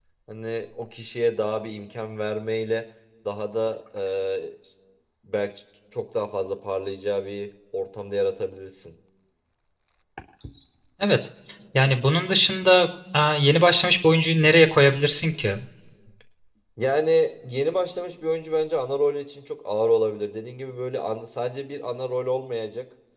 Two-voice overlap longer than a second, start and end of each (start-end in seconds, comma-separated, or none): none